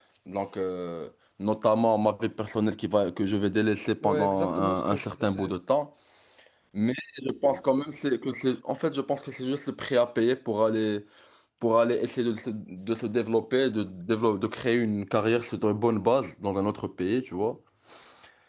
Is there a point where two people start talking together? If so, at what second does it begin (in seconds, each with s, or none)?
4.0 s